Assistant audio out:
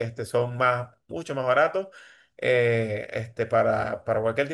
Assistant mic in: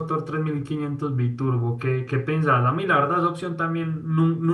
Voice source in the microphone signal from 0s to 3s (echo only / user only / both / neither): user only